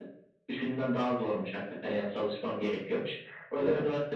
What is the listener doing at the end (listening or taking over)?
listening